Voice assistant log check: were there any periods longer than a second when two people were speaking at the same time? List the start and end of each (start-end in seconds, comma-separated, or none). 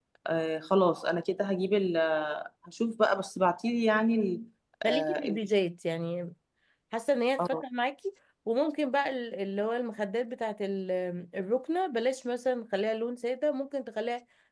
none